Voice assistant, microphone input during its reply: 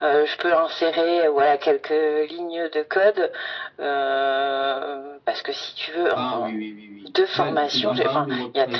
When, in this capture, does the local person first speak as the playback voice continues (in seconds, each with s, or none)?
6.1 s